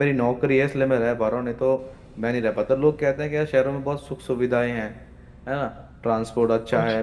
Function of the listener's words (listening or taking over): listening